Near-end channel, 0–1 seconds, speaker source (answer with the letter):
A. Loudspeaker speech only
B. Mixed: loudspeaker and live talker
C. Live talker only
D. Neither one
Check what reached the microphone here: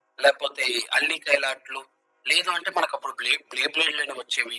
A